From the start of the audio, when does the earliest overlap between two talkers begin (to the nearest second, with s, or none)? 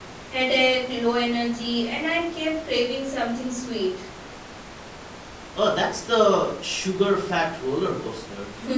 none